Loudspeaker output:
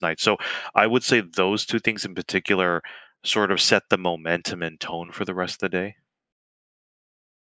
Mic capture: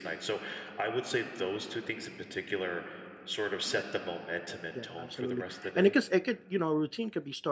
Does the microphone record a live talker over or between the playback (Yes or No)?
Yes